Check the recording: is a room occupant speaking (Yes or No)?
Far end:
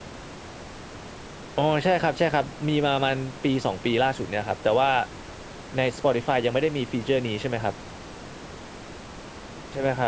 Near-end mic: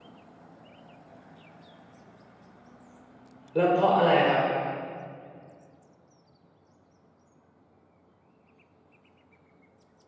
Yes